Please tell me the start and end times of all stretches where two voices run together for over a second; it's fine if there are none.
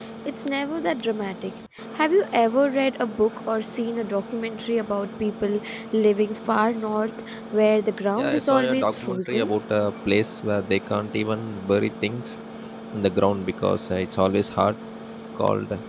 8.2-9.5

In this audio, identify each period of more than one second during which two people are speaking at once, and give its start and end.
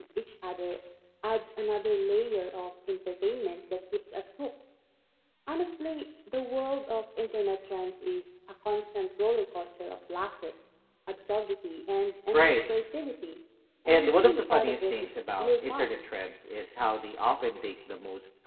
13.9-16.0

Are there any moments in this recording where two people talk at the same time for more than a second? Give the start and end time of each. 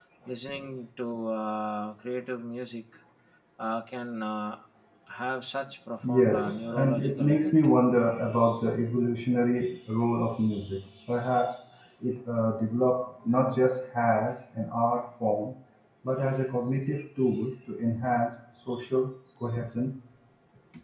6.0-7.5

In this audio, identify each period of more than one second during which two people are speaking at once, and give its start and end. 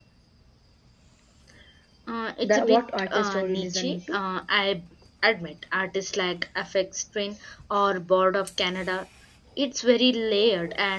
2.4-4.2

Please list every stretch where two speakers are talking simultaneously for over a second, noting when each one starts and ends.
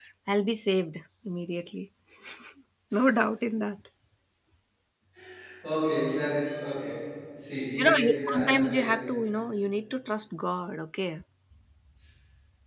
7.8-9.0

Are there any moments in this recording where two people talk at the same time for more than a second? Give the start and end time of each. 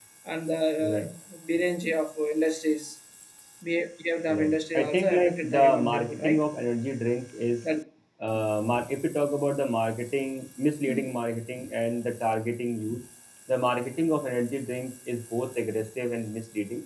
4.3-6.4

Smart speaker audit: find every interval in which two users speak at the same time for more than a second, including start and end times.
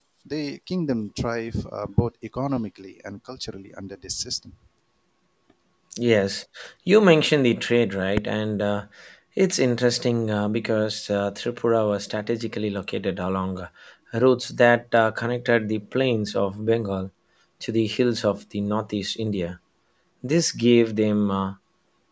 none

